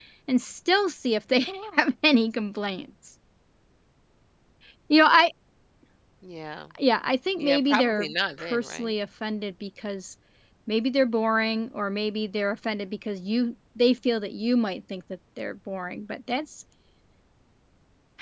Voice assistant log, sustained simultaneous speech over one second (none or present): present